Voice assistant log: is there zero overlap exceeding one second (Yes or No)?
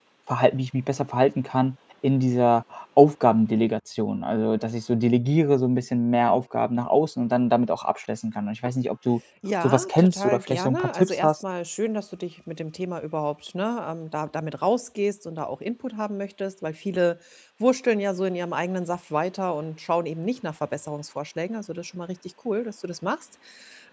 No